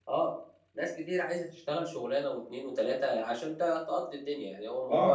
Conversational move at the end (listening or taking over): taking over